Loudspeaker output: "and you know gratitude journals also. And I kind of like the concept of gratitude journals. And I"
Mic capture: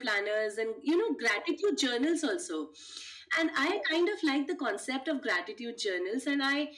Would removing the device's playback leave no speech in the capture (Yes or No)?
Yes